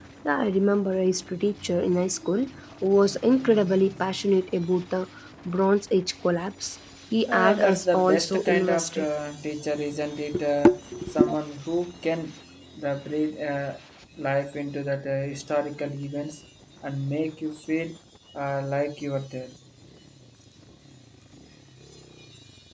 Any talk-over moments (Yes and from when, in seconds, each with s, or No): Yes, from 7.3 s